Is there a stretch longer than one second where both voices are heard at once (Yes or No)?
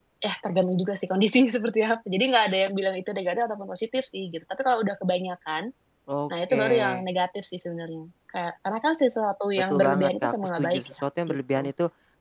Yes